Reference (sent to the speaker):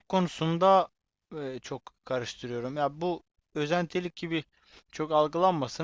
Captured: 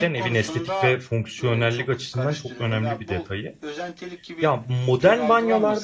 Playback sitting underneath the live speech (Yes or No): Yes